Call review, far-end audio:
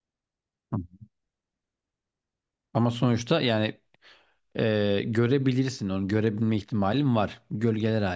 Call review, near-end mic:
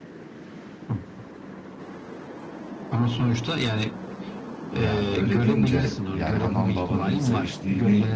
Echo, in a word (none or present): present